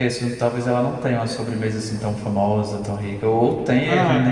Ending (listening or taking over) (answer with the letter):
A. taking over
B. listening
A